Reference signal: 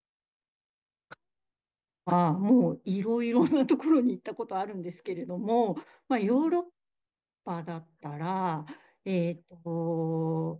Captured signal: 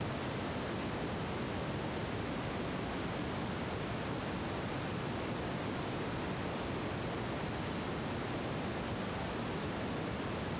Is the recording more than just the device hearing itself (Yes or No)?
No